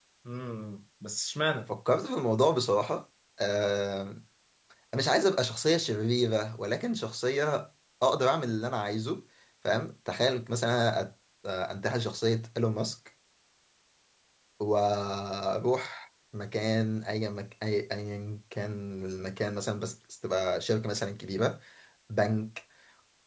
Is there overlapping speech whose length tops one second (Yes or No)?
No